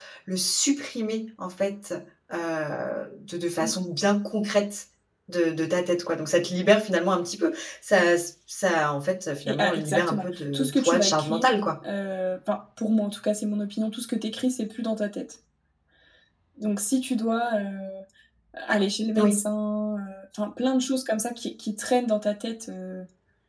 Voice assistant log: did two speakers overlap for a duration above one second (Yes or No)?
Yes